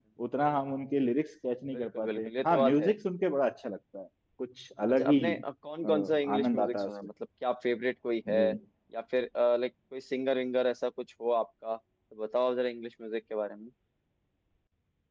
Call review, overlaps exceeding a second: present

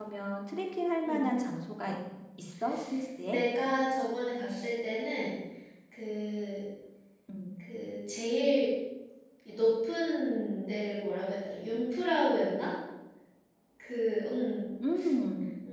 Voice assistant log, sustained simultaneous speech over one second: none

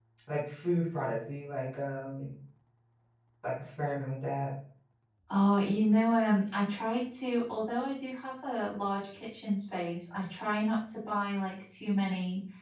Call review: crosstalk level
none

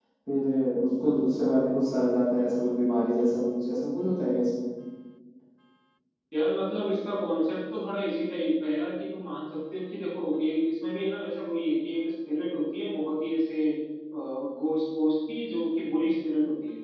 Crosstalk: none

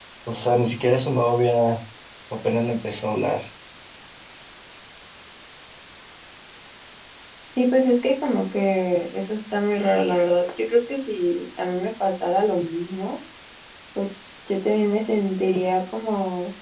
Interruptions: none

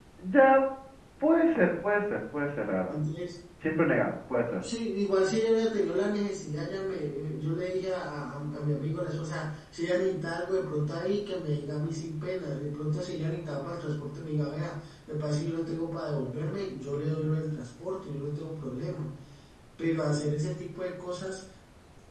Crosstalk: none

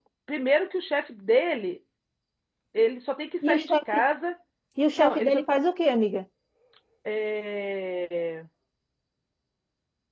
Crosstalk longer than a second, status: none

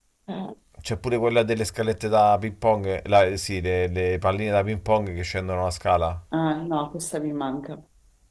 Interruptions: none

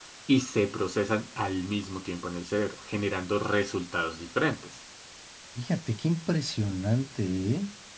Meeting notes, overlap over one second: none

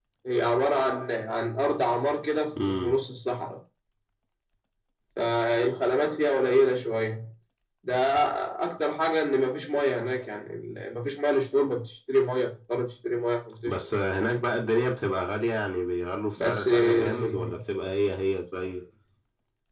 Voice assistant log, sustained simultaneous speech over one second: present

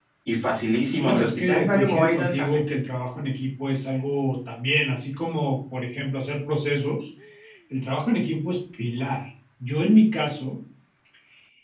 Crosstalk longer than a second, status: present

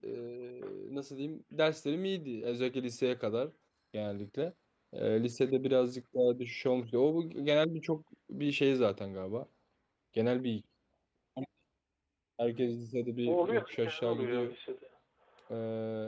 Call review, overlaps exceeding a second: present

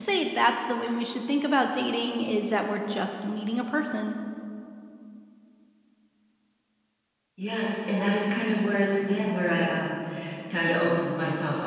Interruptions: none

